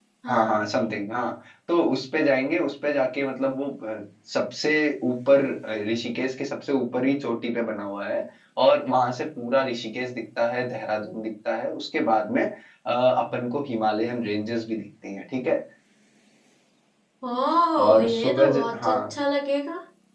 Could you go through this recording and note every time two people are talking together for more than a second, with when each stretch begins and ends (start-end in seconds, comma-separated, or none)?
17.8-19.2